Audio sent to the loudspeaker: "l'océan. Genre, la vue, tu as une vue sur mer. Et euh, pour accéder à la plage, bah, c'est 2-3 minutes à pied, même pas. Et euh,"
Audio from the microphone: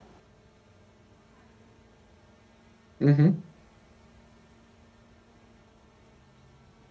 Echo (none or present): none